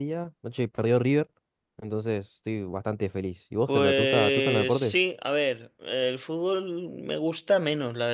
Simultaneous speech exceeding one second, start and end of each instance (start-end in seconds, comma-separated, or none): 3.7-5.0